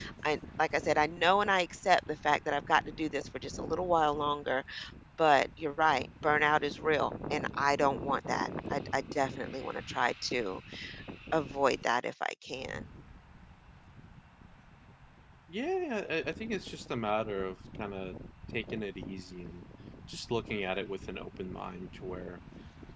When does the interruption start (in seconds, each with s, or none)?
none